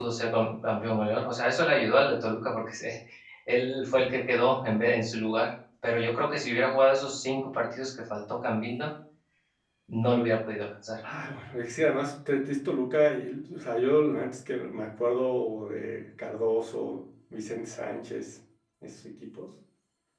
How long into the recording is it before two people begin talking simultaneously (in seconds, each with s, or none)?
none